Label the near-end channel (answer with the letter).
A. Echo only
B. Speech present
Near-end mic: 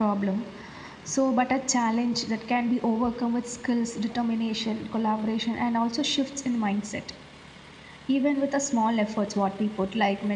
B